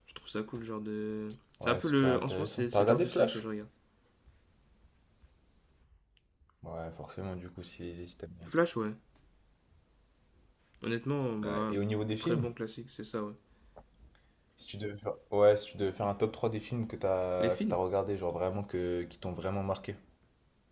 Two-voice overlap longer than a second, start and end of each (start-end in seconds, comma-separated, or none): 1.6-3.4